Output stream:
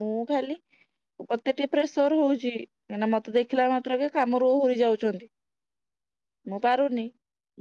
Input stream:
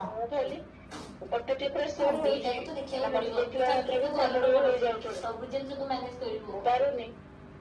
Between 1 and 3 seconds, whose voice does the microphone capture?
both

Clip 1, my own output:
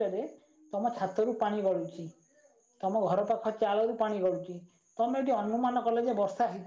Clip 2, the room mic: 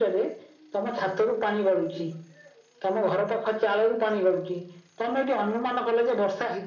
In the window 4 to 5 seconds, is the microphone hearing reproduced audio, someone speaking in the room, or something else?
echo only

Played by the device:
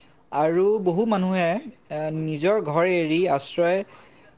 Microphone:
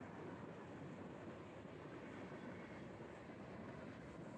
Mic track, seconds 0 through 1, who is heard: neither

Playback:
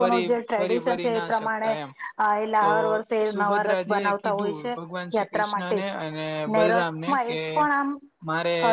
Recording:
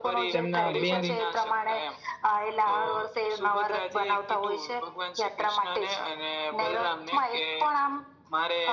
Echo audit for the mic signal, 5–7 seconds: echo only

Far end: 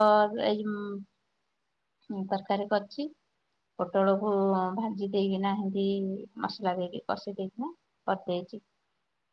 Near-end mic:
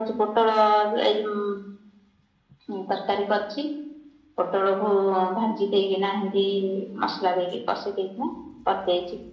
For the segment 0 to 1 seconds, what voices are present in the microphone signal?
echo only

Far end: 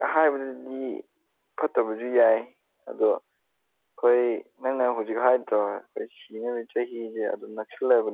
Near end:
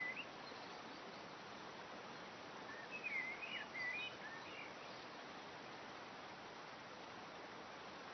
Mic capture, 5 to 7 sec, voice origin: neither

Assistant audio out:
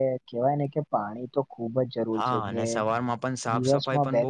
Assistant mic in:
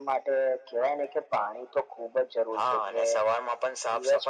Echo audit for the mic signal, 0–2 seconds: echo only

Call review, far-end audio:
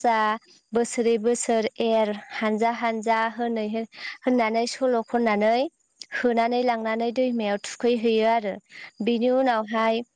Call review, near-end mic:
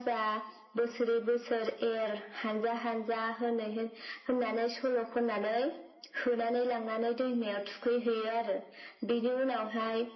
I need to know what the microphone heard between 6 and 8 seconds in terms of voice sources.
echo only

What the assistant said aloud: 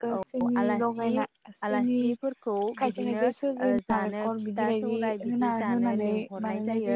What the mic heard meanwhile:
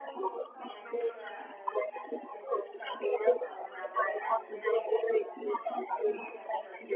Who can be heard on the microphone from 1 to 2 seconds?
both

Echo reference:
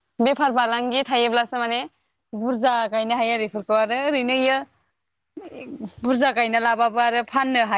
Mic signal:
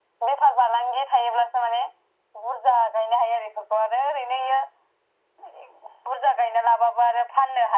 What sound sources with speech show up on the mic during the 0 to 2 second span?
echo only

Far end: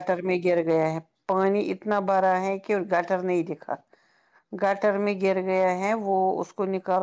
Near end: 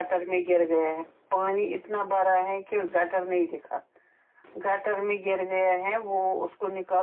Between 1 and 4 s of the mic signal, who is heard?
echo only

